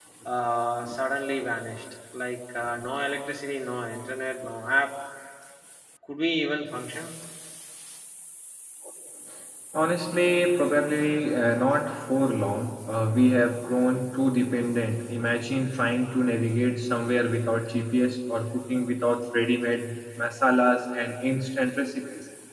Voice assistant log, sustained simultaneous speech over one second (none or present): none